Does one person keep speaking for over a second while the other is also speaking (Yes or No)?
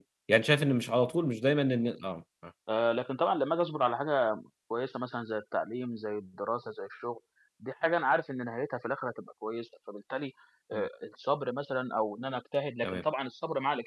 No